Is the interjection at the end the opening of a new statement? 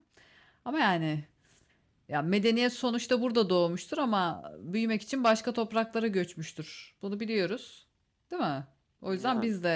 No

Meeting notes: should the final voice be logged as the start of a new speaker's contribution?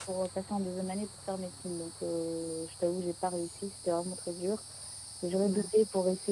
No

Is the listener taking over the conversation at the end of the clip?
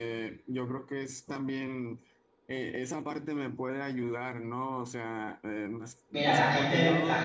Yes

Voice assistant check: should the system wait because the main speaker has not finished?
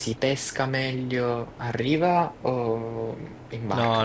No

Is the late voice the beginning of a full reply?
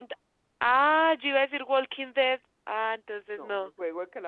Yes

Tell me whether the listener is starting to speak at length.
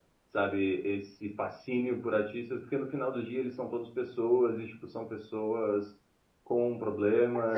Yes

